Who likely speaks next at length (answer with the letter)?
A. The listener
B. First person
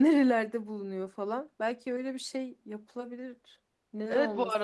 A